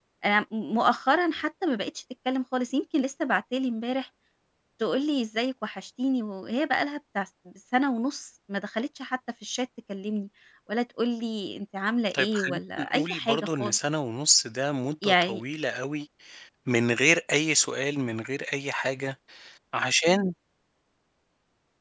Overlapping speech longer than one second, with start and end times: 12.1-13.8

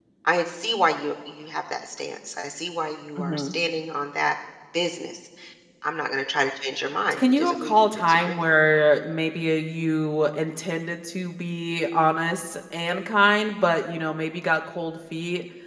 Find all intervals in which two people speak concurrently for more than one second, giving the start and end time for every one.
7.1-8.4

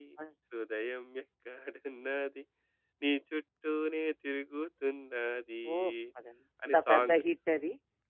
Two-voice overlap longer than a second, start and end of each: none

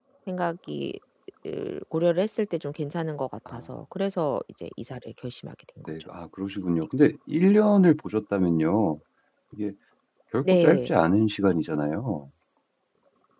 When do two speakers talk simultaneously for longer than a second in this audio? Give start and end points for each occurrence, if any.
none

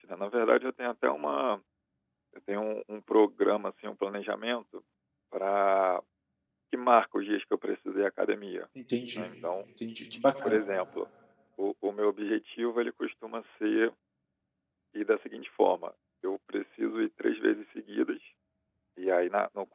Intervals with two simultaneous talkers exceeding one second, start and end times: none

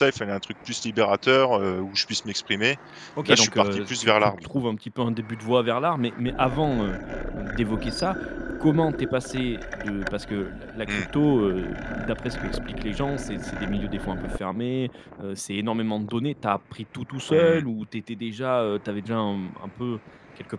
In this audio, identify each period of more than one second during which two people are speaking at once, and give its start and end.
3.2-4.4

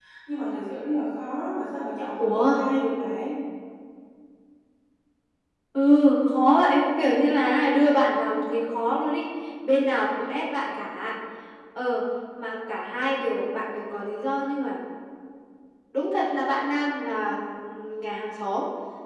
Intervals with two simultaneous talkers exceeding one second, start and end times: none

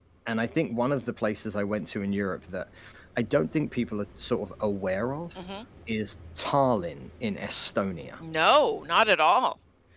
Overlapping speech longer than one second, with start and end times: none

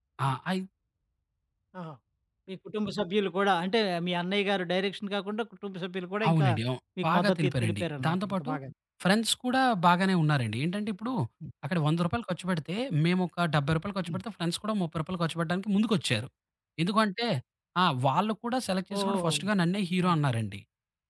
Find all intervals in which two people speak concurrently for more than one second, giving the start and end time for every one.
7.0-8.5

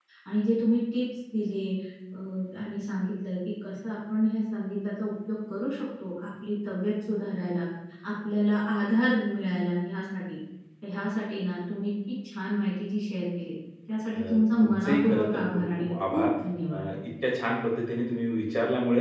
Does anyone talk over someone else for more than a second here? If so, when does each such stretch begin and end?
14.1-16.2

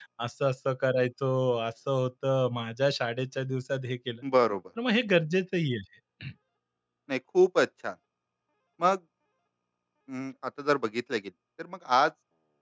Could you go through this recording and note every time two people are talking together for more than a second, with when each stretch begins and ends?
none

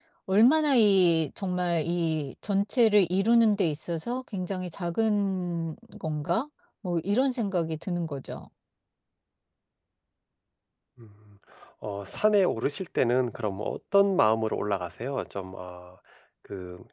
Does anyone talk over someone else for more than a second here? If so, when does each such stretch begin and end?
none

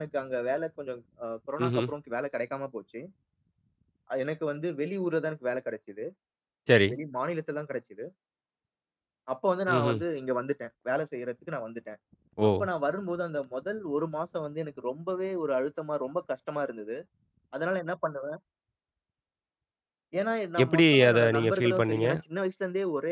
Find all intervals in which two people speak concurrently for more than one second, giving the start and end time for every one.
20.6-22.0

